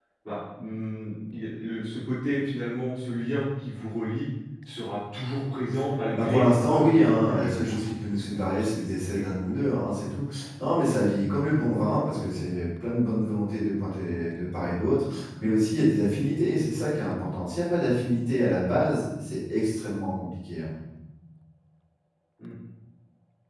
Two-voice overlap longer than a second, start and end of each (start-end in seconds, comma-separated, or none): 6.1-9.7